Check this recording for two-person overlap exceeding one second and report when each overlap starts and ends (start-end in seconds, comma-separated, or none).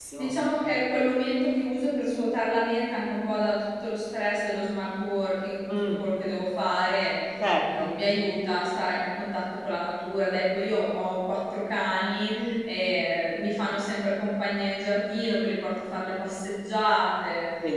none